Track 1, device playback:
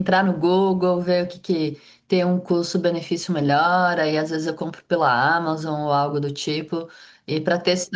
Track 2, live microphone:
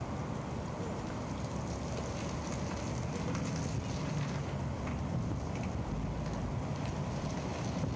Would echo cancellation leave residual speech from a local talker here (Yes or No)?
No